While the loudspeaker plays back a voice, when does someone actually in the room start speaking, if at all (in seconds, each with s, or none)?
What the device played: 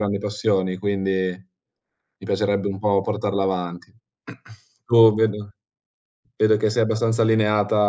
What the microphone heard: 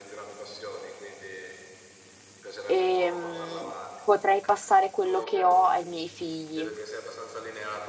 2.6 s